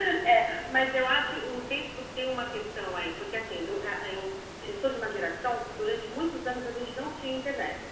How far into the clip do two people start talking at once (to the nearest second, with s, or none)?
none